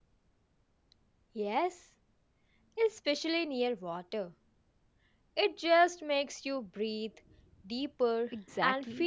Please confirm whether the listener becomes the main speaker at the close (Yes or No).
Yes